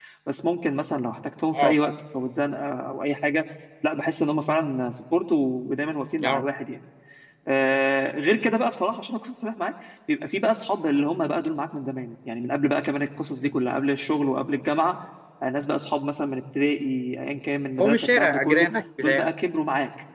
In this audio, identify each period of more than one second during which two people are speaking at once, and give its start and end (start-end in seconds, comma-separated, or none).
17.8-19.3